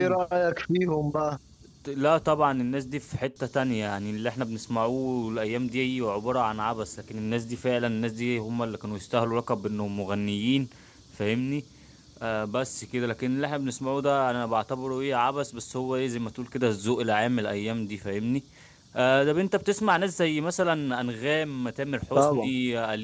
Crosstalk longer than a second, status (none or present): none